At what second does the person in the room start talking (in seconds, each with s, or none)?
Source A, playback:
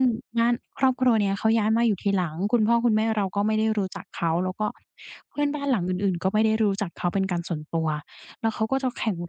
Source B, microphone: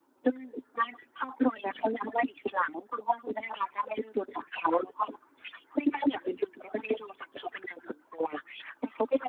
none